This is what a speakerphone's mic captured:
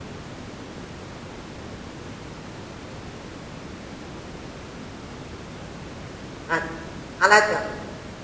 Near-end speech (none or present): present